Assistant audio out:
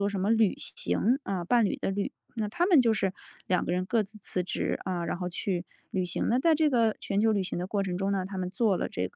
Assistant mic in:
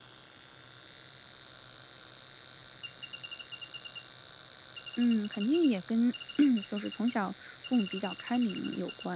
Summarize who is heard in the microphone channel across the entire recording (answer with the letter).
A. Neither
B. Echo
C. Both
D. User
D